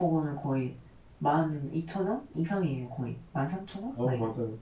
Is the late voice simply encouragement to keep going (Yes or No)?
No